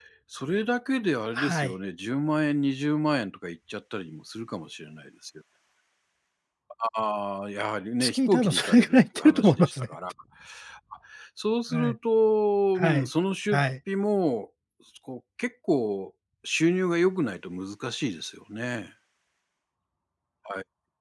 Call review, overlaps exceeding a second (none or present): present